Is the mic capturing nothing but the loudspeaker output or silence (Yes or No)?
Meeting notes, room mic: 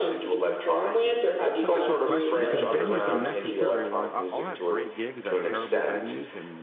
No